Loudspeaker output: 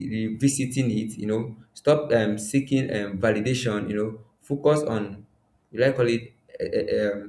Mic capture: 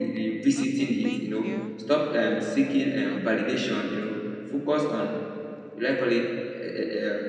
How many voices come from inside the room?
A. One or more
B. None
A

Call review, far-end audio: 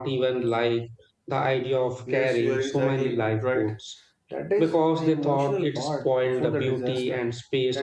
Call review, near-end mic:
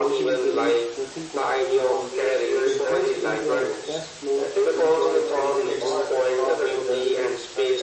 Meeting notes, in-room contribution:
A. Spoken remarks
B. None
A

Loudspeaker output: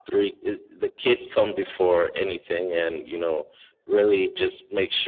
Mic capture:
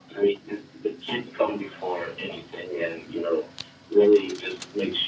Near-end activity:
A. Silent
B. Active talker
A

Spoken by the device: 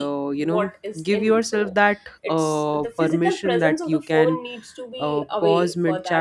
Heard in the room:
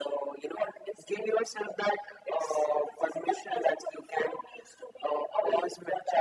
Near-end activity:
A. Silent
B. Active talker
A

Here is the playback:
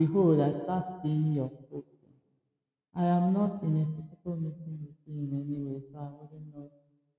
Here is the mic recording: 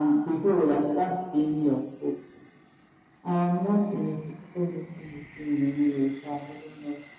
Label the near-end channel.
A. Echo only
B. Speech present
A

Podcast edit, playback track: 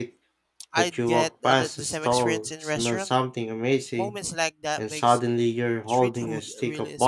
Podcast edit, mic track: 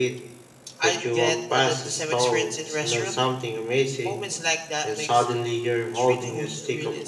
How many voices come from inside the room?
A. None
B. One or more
A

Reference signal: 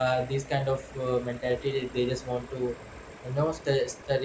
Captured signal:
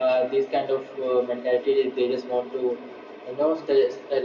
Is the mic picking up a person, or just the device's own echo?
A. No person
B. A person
A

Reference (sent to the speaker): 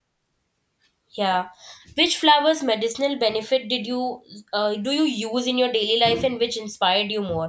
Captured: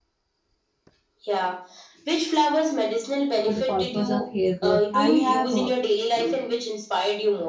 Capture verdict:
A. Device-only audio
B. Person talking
B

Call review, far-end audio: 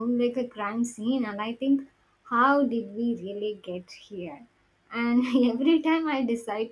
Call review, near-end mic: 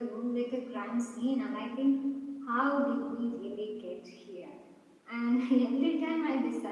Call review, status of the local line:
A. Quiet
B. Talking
A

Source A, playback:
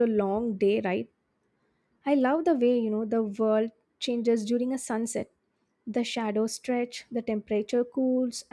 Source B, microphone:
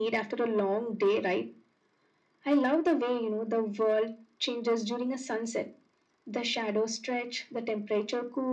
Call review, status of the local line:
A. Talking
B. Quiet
B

